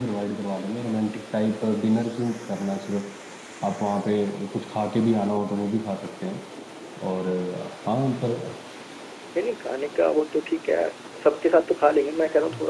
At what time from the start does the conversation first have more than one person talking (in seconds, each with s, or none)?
none